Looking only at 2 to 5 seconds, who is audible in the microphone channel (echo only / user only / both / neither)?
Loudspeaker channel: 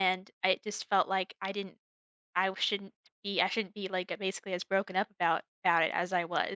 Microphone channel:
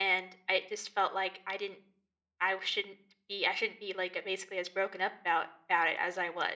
echo only